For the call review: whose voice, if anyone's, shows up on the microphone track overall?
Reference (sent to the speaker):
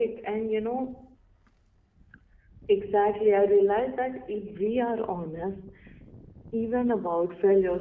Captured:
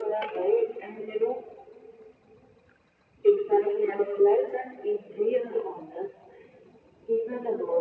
echo only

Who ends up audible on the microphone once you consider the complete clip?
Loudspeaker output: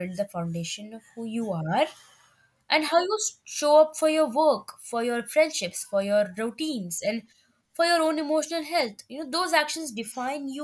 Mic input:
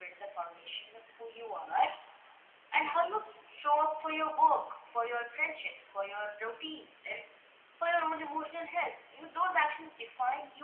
echo only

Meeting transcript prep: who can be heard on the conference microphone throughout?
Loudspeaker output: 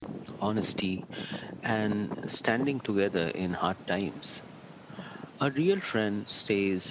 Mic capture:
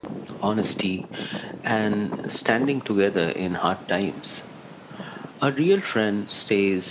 echo only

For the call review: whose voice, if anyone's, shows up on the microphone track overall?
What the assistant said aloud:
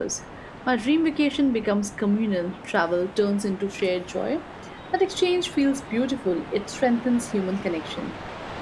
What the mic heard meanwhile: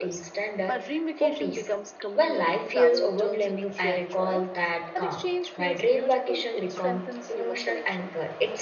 both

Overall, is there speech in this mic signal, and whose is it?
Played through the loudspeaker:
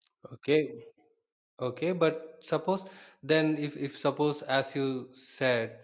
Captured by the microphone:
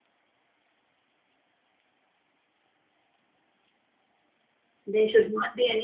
user only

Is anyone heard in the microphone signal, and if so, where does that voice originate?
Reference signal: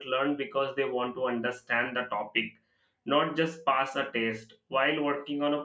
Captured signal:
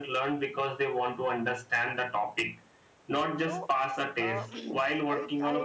both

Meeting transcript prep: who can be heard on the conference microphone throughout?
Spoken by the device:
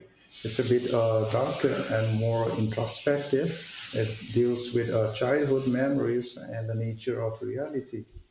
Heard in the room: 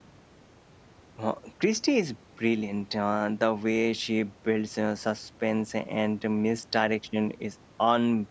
user only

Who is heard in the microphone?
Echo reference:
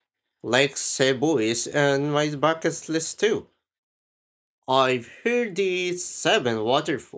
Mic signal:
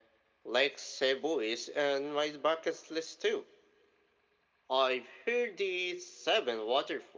echo only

